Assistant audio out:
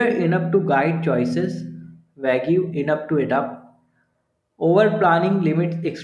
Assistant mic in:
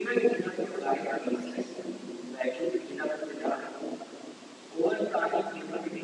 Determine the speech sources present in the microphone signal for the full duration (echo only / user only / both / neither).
echo only